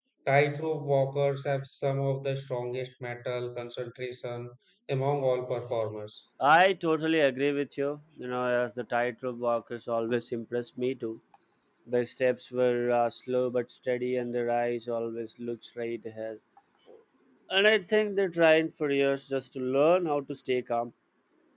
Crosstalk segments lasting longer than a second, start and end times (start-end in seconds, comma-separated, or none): none